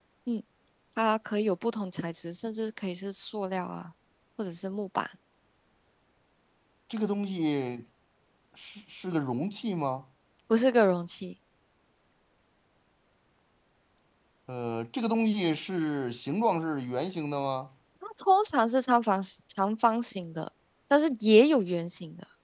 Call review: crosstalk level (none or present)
none